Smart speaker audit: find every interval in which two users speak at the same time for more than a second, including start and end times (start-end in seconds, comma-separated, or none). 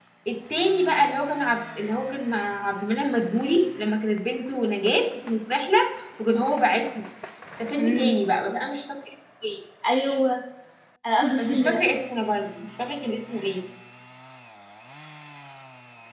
none